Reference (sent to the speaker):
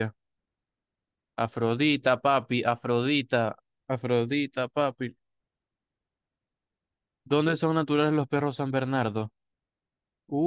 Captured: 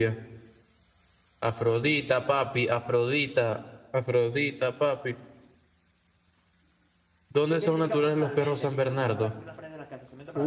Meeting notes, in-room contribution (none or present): present